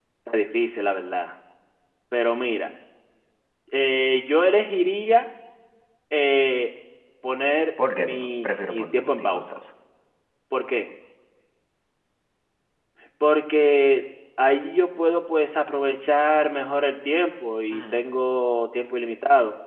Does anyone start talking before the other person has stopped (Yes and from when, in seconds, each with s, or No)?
Yes, from 7.9 s